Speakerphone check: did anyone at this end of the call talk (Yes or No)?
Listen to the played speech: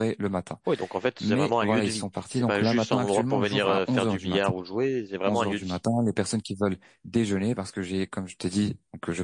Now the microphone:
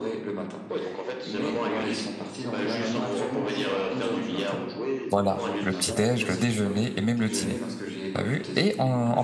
Yes